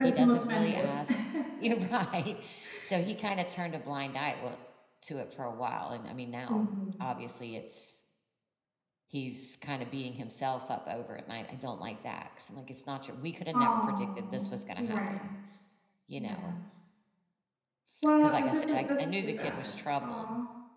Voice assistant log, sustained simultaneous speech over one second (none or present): present